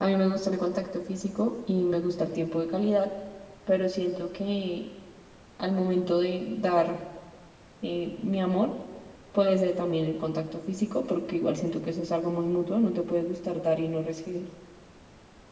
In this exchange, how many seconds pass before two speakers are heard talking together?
none

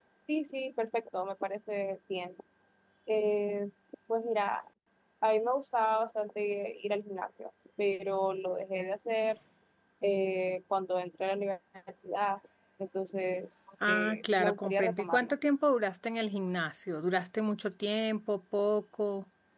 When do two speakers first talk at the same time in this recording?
13.9 s

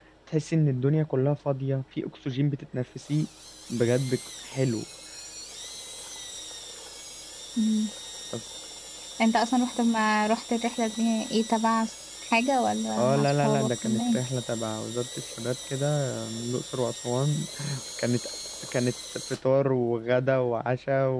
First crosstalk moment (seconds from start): 13.0 s

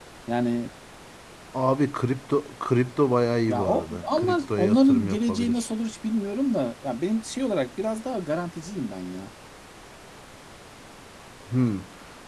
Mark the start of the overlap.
3.5 s

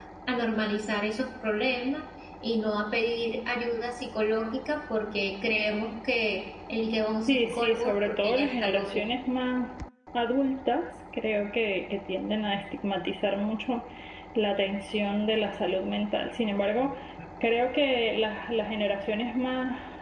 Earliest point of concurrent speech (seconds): 7.3 s

